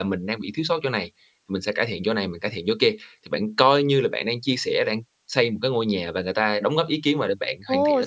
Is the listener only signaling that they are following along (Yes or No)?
No